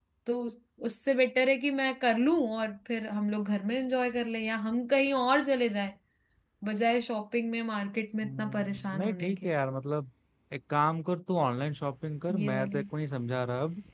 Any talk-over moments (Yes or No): Yes